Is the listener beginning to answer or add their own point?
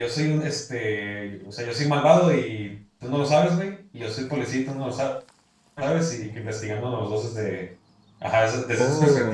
No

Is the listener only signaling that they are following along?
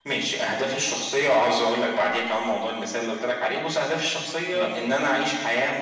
Yes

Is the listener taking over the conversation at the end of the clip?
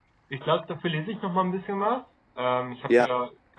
No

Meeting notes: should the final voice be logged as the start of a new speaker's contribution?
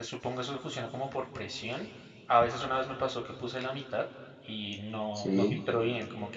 No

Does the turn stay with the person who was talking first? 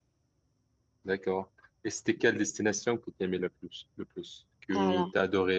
Yes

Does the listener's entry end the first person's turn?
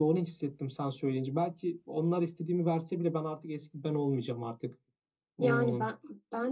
Yes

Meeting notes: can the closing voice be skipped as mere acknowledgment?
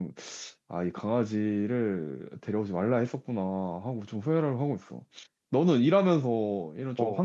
Yes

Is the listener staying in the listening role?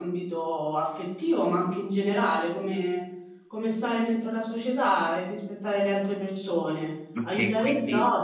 No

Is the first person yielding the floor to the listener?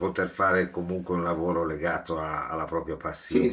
Yes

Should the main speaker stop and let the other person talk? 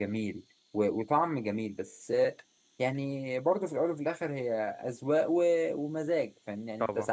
No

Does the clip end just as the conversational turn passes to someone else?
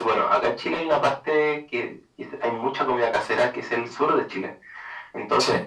No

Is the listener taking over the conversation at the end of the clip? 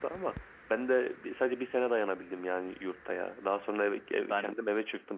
No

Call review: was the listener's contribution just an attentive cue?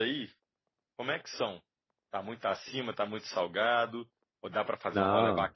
Yes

